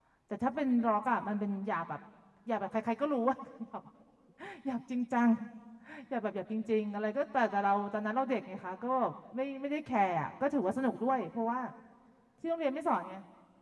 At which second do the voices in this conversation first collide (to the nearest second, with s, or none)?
none